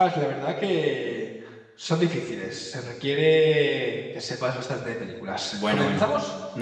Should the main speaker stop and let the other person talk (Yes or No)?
Yes